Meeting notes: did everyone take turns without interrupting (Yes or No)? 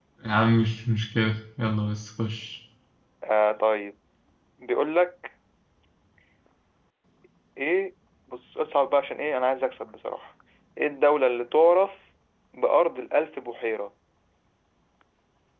Yes